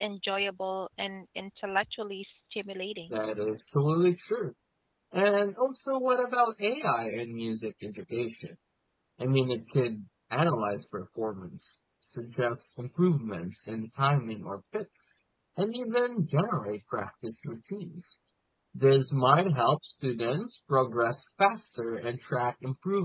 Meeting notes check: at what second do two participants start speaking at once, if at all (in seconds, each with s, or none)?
none